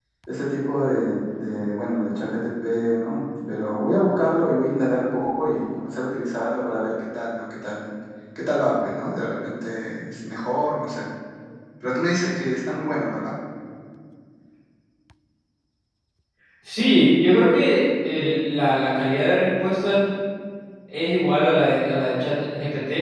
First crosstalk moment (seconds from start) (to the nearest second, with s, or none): none